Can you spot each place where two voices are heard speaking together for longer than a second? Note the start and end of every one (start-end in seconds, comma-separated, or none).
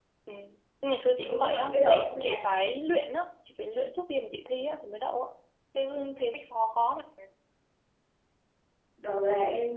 1.2-2.5